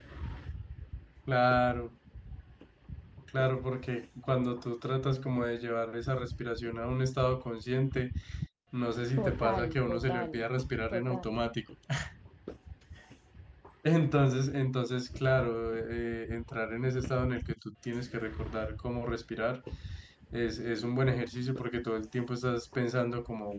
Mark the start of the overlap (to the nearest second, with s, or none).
9 s